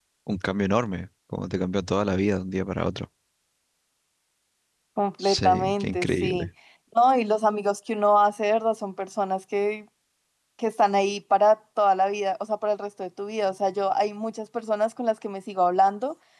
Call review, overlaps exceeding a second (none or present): present